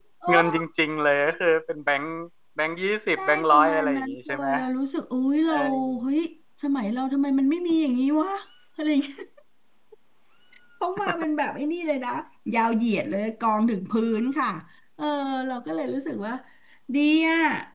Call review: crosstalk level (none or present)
present